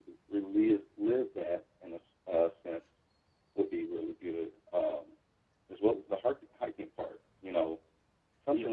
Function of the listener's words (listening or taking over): listening